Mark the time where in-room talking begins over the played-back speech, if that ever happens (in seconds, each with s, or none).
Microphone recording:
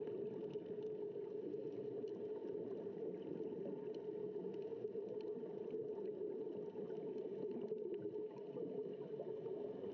none